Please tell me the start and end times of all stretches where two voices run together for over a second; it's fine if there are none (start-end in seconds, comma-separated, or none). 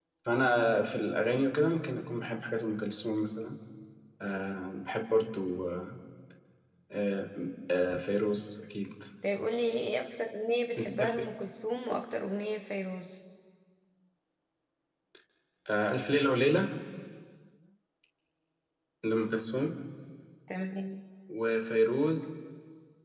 none